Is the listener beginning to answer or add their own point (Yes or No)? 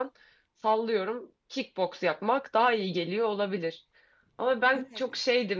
No